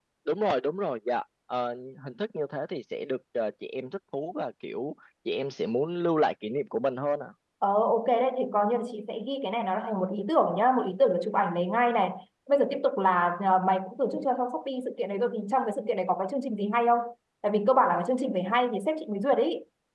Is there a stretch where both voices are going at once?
No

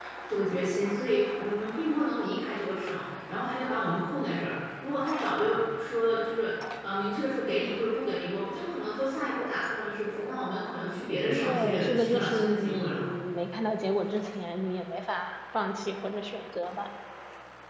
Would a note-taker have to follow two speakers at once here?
Yes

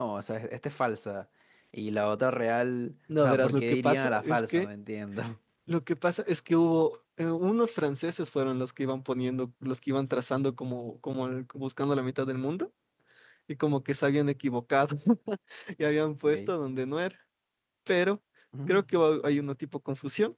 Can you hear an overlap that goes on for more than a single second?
Yes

